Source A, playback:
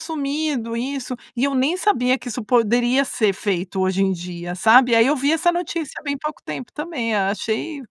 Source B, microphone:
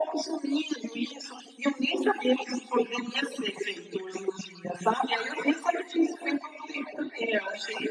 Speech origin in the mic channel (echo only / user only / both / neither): echo only